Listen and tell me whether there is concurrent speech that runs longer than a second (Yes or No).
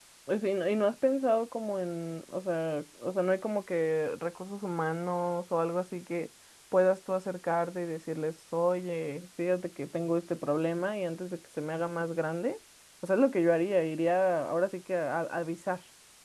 No